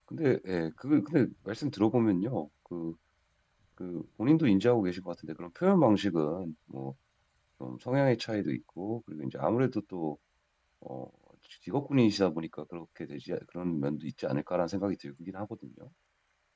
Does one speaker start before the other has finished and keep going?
No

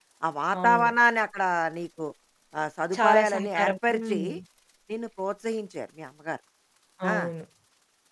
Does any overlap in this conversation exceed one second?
Yes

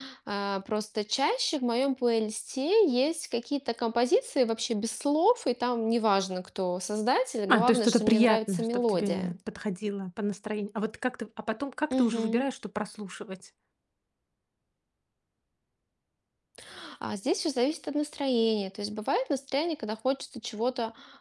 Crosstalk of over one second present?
Yes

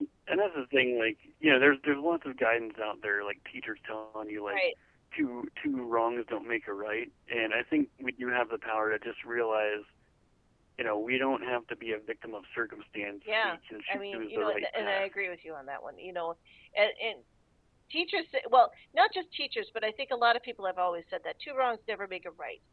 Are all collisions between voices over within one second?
No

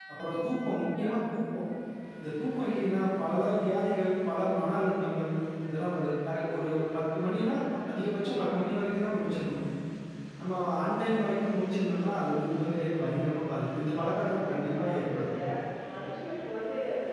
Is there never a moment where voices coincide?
No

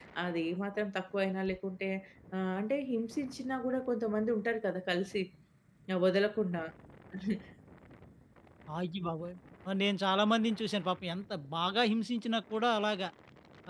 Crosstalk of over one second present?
No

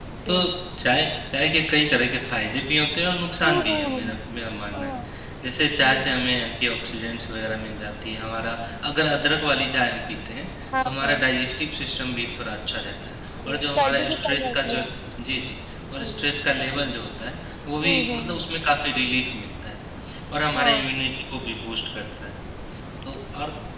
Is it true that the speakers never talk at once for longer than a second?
No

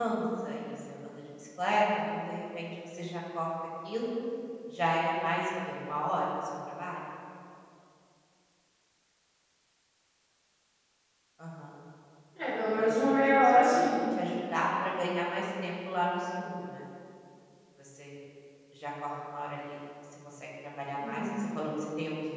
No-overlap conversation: No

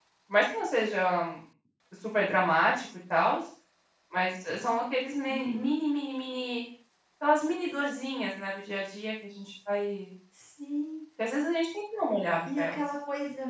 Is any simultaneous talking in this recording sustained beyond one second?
No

